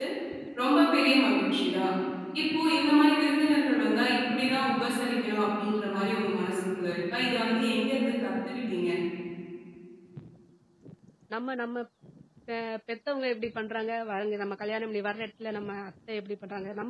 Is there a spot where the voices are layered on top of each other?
No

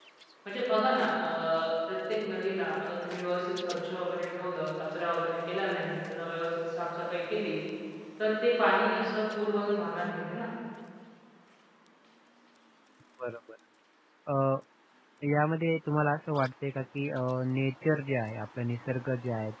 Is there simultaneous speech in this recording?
No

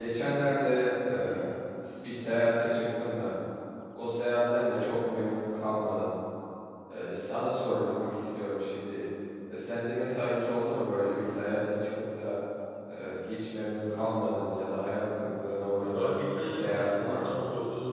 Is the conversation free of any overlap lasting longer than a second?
No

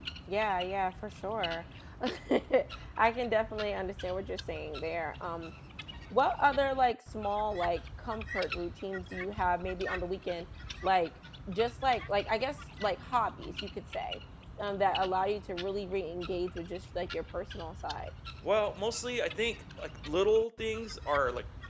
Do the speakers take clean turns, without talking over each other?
Yes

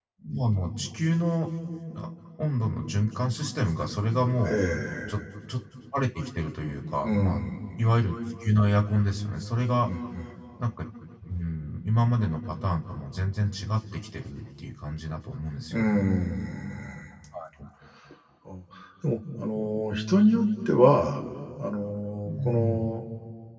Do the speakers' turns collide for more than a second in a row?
No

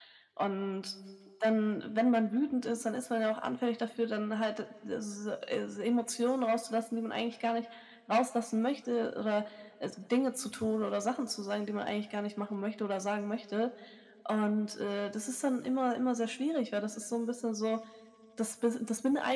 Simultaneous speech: No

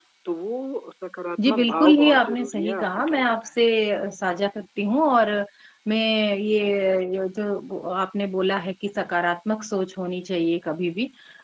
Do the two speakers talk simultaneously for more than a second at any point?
Yes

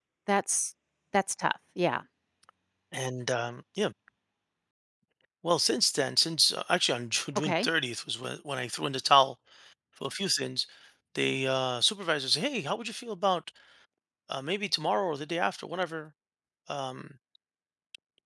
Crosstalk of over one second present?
No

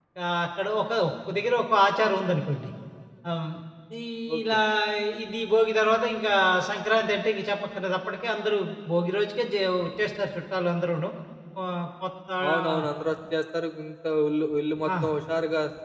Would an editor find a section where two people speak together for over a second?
No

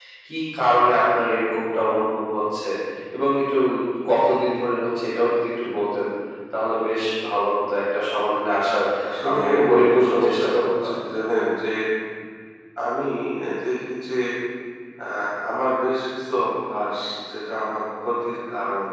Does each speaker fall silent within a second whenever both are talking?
No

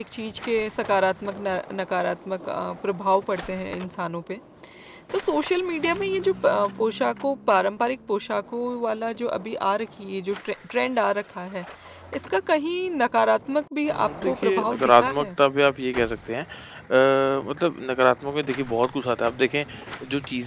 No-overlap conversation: No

